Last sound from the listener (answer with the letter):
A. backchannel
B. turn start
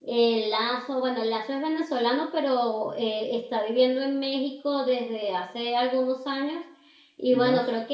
A